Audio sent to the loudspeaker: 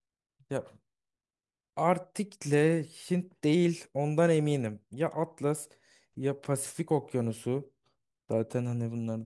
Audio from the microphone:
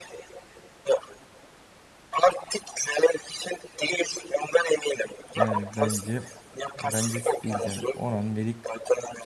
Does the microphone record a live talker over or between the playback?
Yes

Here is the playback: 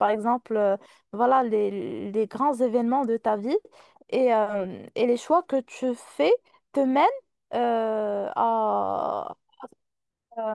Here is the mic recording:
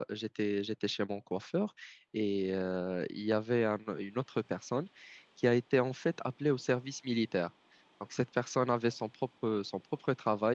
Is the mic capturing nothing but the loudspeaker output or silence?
No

